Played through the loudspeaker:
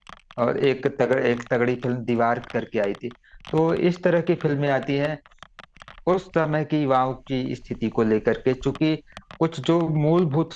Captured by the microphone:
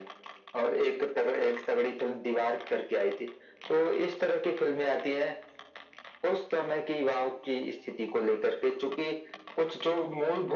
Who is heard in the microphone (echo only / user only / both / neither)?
echo only